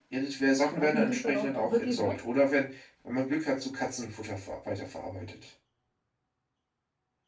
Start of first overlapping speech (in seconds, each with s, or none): 0.7 s